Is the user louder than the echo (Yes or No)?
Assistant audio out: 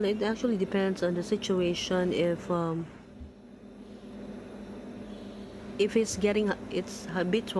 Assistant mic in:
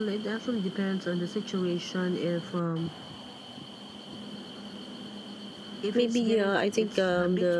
Yes